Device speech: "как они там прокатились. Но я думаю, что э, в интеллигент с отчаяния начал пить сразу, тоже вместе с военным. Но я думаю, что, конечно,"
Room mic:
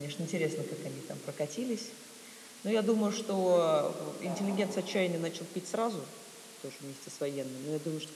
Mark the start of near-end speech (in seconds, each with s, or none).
4.2 s